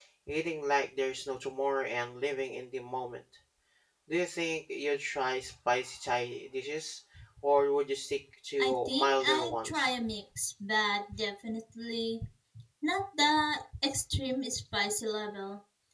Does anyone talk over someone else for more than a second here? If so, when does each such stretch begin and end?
8.6-9.9

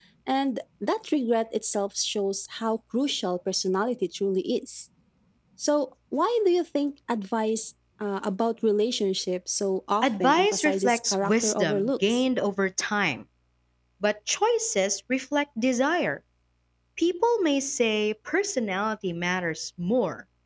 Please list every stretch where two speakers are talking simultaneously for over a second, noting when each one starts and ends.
10.0-12.2

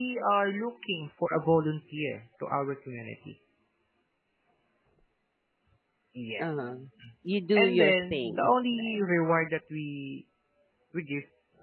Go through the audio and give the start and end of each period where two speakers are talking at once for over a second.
7.5-9.0

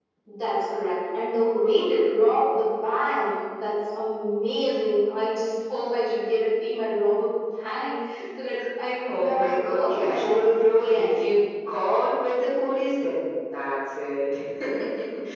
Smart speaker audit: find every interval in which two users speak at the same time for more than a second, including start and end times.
9.1-11.3

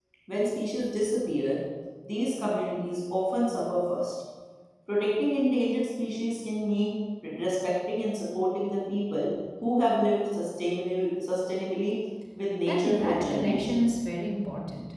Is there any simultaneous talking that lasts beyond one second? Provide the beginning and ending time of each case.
12.7-13.9

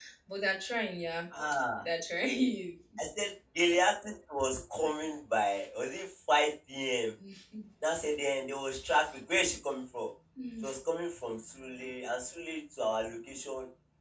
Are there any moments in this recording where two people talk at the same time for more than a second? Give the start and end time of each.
none

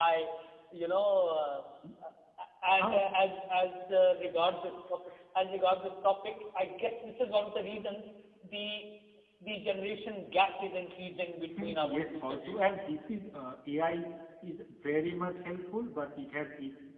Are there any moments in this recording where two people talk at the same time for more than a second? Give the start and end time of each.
11.6-12.8

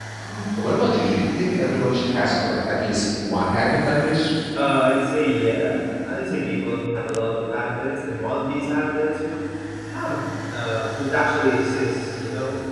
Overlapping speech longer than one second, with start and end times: none

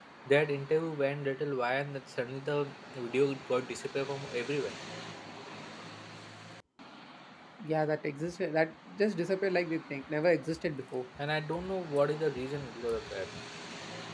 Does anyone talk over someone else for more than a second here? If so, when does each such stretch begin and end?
none

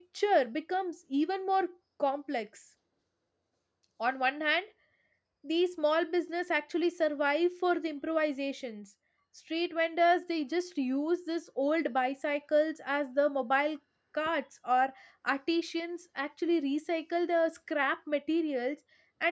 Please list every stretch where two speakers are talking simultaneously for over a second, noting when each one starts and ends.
none

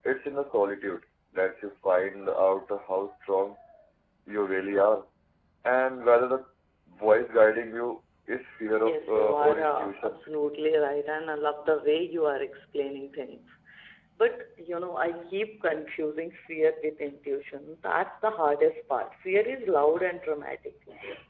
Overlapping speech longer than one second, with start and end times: 8.8-10.2

